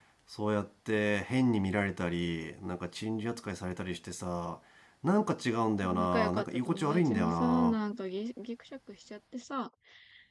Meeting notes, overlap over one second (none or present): present